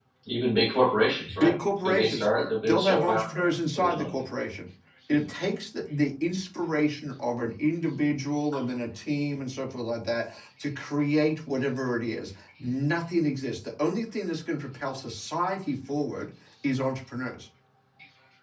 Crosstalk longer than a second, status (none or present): present